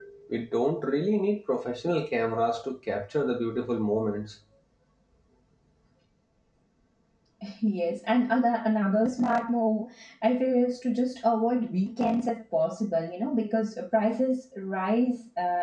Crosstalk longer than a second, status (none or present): none